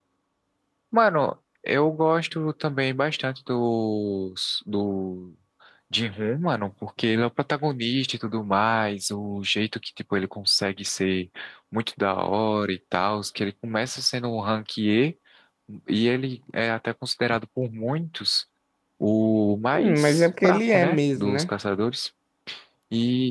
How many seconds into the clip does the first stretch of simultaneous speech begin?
19.7 s

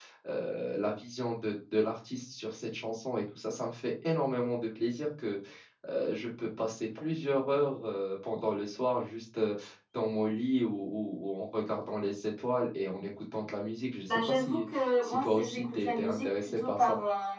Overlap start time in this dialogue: 14.1 s

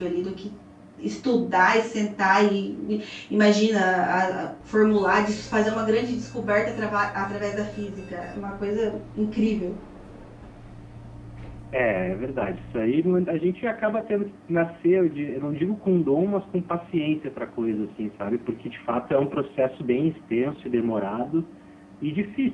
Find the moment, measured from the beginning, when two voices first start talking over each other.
none

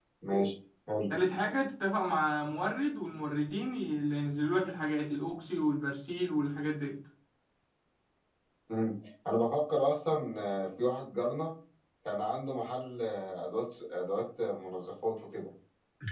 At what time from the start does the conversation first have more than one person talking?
none

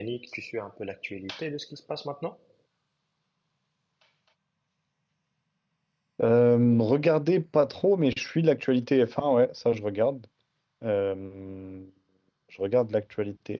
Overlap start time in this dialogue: none

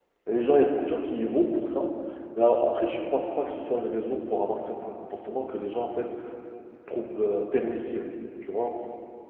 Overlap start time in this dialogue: none

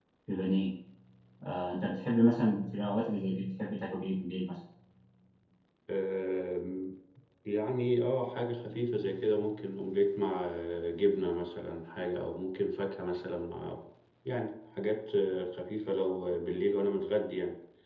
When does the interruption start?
none

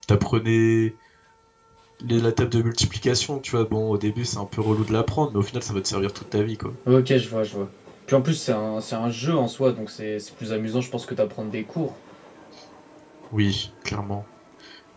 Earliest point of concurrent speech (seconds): none

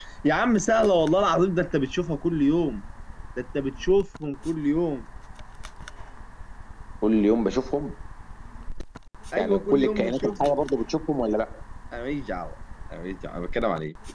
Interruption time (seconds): 9.4 s

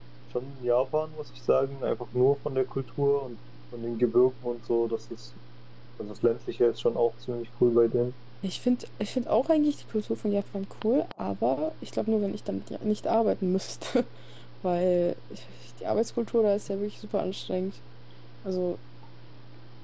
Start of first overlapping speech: none

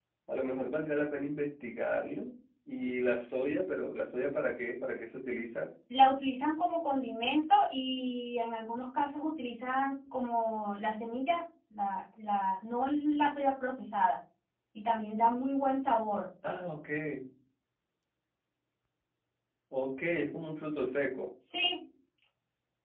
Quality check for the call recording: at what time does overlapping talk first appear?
none

